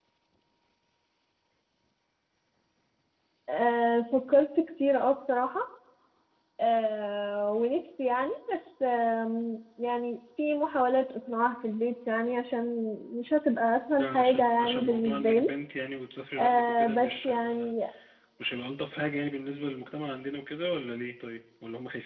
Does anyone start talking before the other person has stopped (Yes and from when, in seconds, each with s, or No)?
Yes, from 13.9 s